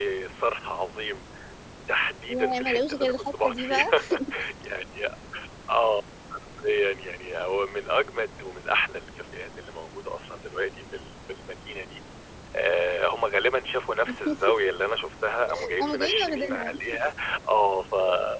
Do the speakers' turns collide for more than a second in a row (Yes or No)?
Yes